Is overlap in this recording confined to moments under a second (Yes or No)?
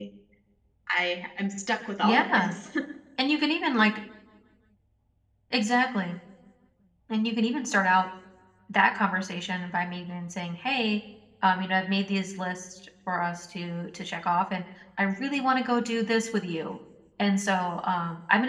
Yes